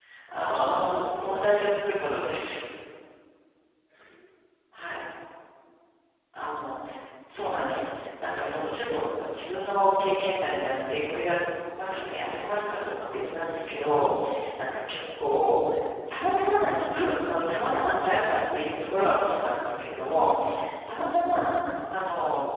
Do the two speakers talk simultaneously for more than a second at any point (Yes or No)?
No